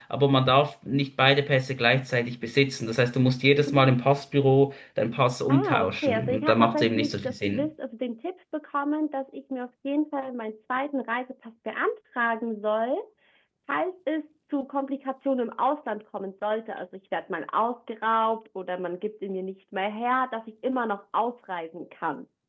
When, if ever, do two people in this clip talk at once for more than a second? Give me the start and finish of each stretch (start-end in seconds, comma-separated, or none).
5.5-7.7